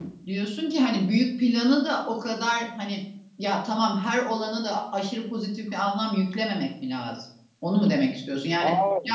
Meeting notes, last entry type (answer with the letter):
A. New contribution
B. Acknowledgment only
B